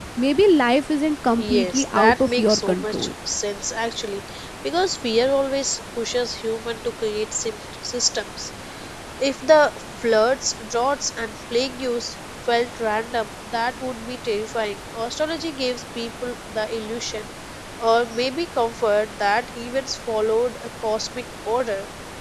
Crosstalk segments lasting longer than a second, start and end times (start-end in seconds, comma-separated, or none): 1.5-3.1